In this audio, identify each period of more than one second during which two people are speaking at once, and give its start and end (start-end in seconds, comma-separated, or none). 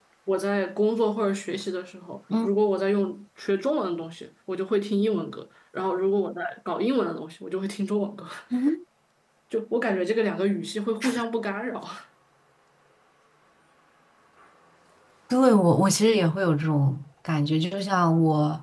none